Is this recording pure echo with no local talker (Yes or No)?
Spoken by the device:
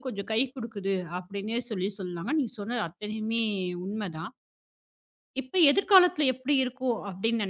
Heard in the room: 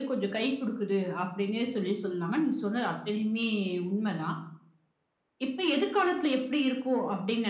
Yes